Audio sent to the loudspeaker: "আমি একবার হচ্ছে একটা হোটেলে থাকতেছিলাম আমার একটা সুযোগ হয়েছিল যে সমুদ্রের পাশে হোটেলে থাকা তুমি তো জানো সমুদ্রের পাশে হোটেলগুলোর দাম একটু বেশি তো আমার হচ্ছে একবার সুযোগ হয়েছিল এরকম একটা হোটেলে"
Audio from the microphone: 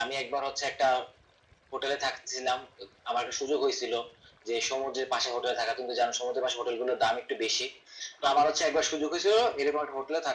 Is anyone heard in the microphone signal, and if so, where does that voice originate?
echo only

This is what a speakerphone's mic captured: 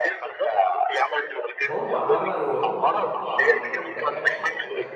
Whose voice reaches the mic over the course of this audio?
both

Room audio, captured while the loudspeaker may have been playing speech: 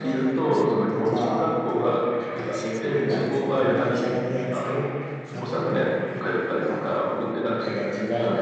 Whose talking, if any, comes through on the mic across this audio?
both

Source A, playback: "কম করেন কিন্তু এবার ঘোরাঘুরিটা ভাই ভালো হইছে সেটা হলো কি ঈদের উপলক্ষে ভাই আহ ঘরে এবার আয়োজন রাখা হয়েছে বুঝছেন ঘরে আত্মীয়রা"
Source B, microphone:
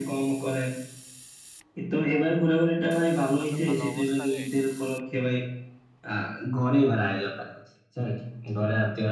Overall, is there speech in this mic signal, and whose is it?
both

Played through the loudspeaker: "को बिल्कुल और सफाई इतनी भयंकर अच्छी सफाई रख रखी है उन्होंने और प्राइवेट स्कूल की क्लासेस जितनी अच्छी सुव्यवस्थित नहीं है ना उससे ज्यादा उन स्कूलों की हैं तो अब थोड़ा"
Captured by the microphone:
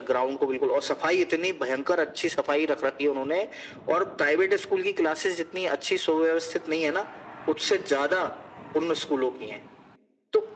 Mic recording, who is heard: echo only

